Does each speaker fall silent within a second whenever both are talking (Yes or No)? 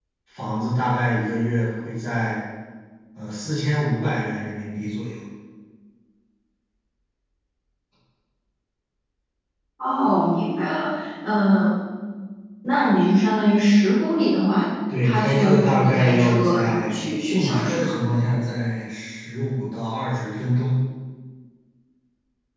No